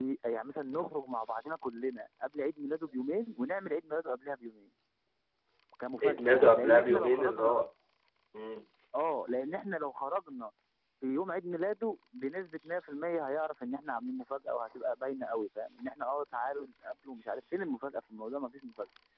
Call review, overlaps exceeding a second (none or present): present